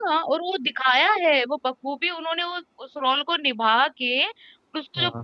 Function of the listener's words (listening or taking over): listening